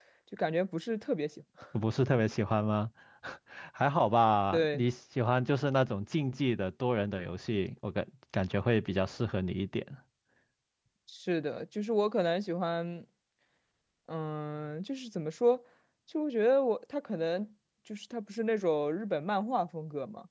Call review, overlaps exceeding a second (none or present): none